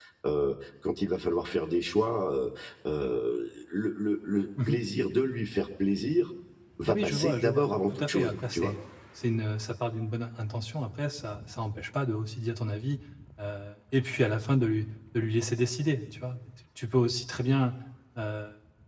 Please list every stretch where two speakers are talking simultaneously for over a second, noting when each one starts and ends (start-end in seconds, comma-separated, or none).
6.9-8.7